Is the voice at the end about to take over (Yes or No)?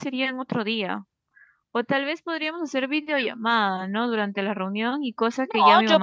Yes